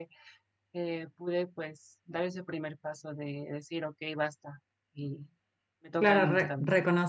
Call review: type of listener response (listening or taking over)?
taking over